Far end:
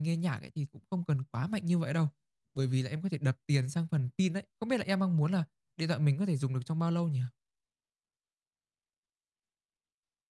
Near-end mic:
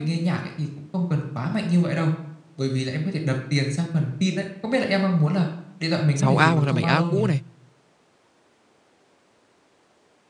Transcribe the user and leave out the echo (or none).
6a hoặc là 7a cũ này